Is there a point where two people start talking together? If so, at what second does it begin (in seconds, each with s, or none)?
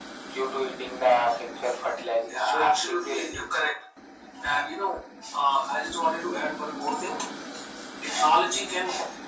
2.2 s